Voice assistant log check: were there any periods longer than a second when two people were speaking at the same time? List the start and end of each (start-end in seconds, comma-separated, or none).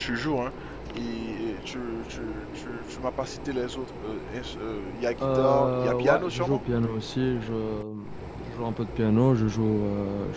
5.3-6.6